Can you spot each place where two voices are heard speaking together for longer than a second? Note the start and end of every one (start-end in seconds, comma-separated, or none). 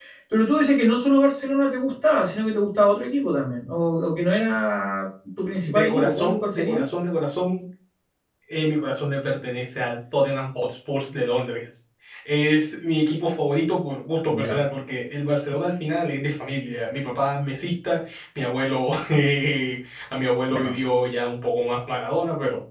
5.6-6.8